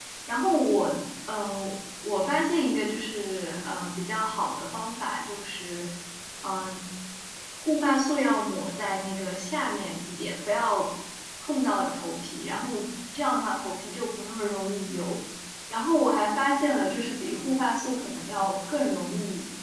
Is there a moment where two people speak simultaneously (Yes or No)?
No